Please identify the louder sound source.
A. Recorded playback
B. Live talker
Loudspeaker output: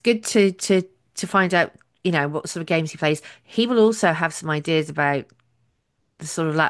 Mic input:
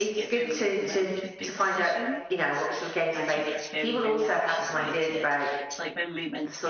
A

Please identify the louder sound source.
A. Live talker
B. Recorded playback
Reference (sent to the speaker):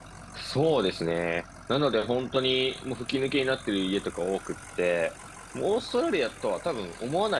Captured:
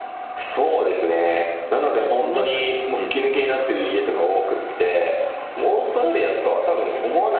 B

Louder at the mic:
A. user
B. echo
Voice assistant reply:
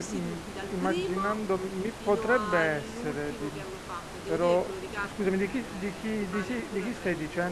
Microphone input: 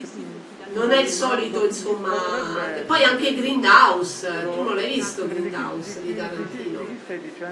A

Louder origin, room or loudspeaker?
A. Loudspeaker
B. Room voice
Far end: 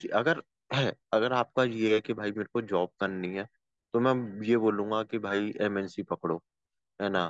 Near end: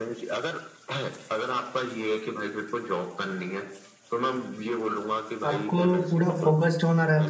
B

